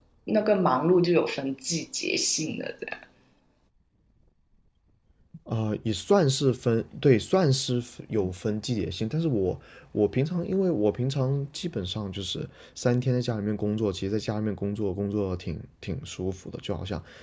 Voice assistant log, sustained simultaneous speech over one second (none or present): none